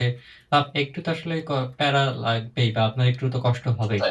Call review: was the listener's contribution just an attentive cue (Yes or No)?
Yes